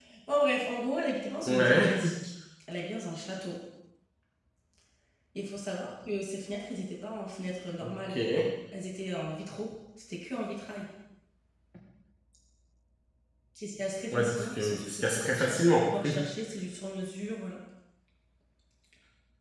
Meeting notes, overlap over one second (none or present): present